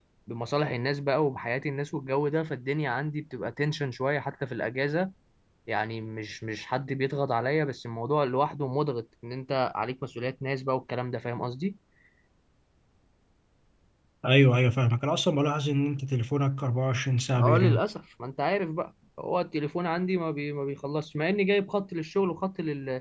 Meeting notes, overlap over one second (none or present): none